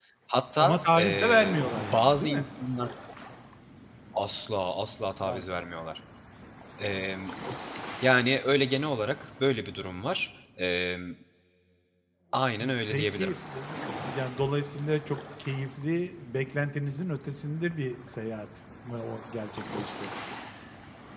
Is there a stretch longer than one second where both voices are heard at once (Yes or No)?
Yes